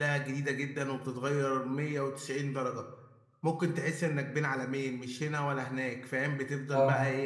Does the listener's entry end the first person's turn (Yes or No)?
No